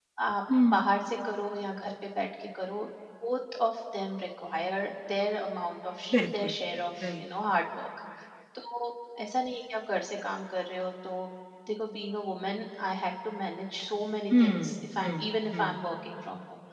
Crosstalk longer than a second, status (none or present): present